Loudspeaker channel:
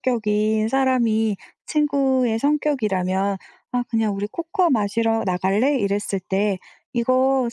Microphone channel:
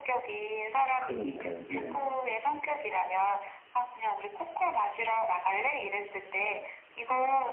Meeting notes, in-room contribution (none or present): present